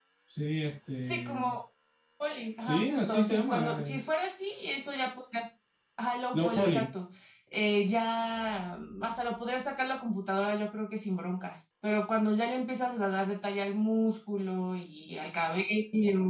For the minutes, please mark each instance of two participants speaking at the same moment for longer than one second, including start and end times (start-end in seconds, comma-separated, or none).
2.6-4.0